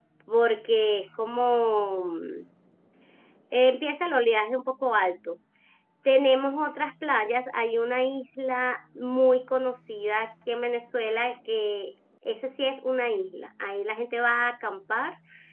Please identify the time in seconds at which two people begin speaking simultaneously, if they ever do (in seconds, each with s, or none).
none